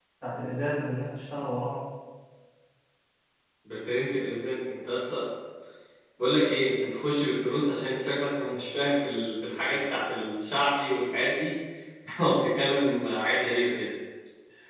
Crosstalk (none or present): none